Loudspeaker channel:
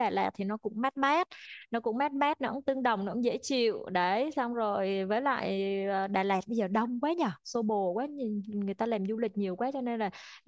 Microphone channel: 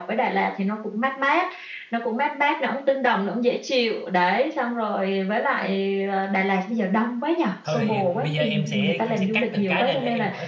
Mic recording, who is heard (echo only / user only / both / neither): both